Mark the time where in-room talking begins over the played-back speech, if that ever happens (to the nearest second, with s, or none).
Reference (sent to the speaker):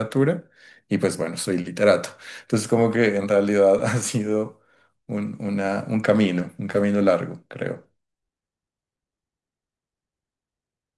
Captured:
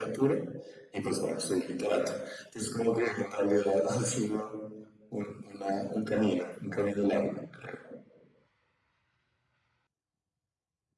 none